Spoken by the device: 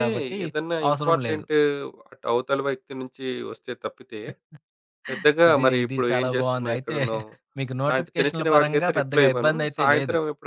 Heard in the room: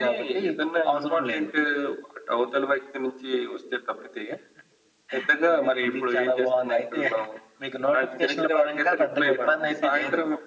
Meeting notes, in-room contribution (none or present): none